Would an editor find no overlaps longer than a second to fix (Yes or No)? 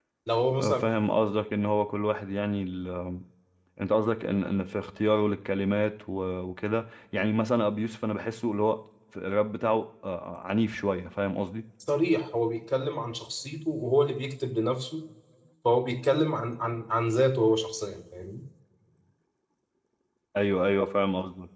Yes